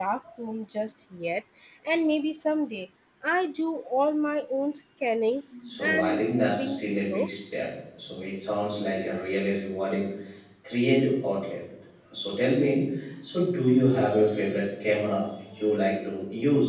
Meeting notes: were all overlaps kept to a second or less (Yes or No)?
No